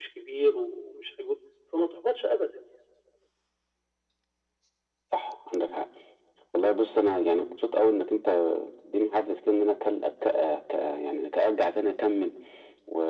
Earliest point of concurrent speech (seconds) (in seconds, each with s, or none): none